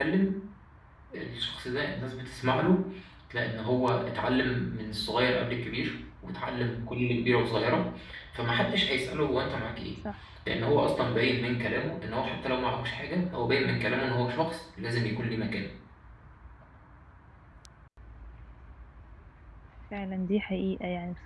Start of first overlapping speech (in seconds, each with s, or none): none